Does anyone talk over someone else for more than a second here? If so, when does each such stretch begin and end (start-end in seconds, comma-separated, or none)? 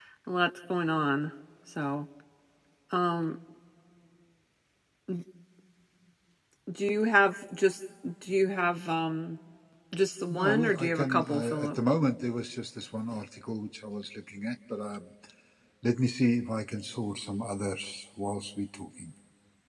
10.3-11.8